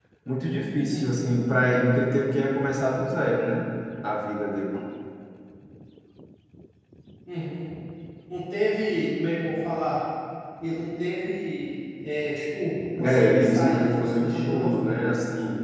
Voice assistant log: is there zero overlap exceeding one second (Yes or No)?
No